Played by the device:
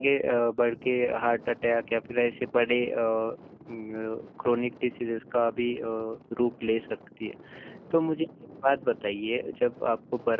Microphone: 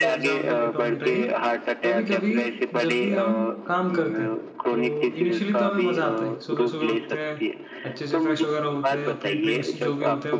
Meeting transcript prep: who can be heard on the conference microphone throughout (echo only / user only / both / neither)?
both